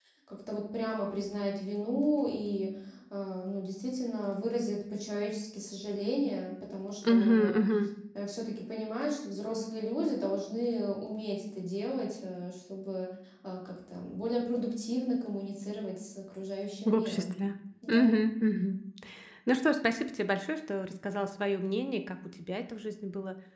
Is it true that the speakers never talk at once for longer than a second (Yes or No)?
Yes